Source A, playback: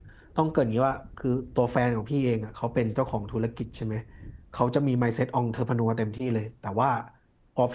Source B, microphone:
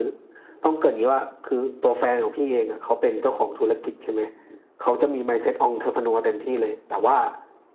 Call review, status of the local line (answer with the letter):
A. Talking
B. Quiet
B